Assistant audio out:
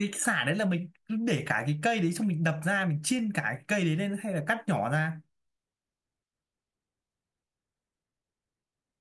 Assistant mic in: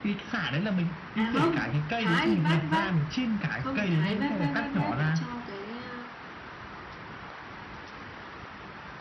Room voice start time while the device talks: 1.1 s

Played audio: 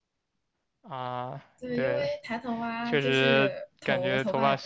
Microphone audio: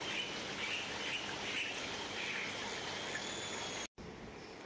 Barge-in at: none

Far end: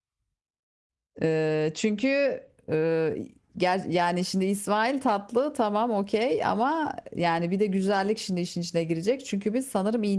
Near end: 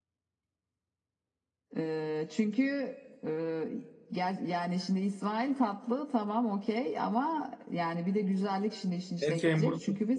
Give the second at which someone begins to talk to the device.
9.2 s

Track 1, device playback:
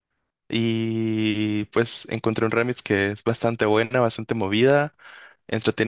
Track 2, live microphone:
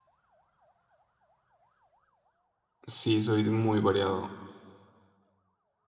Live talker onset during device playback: 2.9 s

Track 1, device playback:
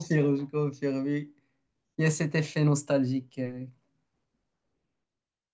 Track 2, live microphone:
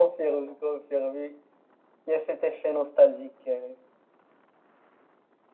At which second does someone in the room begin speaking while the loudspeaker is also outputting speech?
none

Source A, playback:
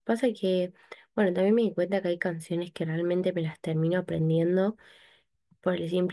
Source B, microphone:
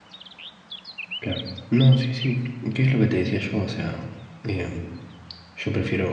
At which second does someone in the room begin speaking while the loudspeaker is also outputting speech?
1.2 s

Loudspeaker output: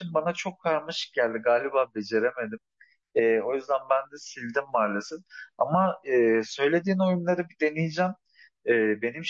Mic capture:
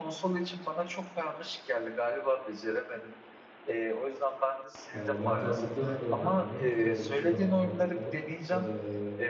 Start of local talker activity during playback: 4.9 s

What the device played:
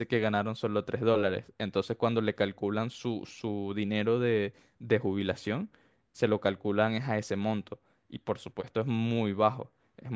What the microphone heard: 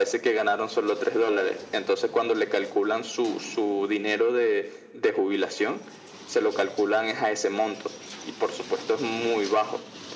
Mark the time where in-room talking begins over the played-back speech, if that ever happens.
none

